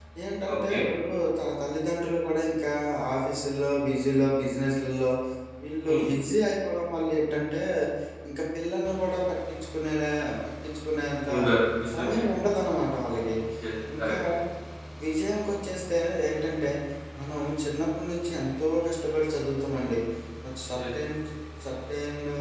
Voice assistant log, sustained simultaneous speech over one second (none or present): none